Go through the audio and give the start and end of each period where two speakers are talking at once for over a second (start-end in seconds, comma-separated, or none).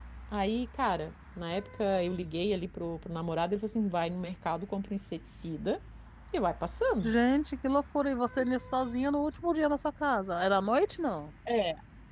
none